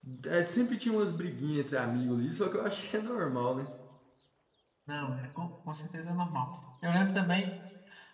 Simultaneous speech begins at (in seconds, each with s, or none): none